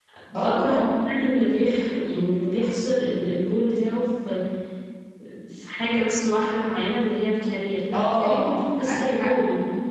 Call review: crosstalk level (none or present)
present